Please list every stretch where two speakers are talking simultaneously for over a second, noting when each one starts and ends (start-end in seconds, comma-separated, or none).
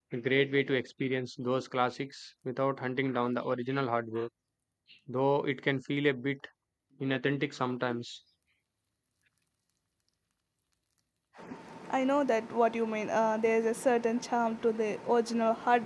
none